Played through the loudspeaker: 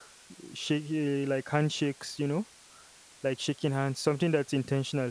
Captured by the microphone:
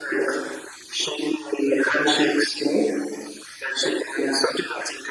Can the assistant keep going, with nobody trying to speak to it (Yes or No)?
Yes